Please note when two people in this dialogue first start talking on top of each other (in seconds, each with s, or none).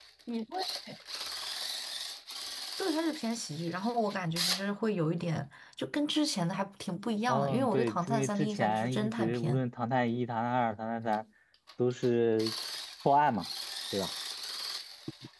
7.3 s